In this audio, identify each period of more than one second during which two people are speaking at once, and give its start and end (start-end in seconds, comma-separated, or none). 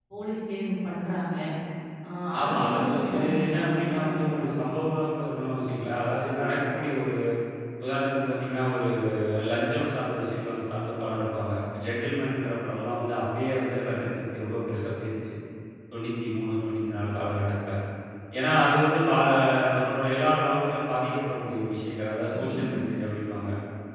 2.4-4.5